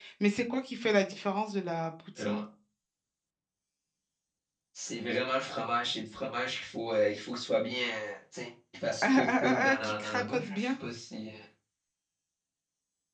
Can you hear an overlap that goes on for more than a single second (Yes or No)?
Yes